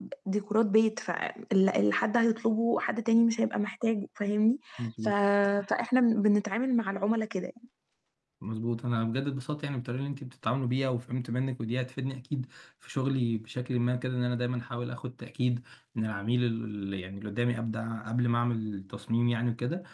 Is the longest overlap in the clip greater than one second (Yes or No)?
No